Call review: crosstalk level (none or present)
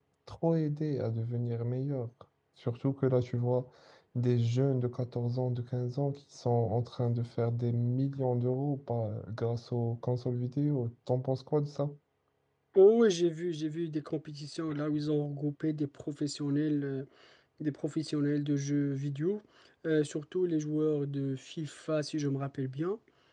none